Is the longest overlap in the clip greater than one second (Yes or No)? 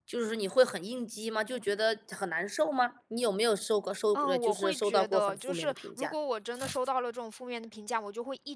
Yes